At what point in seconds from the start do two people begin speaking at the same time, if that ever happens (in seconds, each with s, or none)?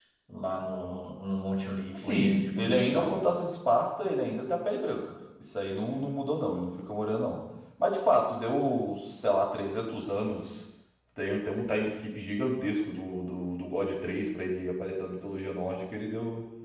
1.9 s